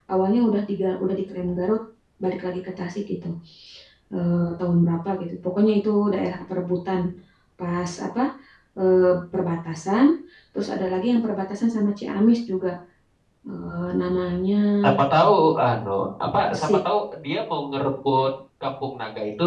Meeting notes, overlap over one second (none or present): none